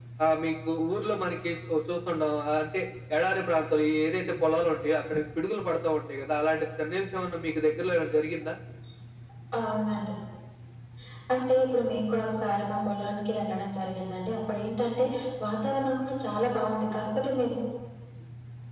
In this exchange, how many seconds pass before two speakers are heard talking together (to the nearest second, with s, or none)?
none